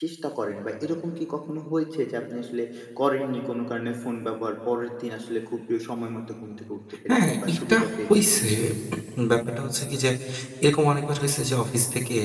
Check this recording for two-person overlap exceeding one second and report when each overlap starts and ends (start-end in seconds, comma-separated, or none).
7.1-8.3